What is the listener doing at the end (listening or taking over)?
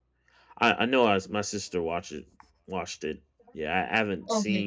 listening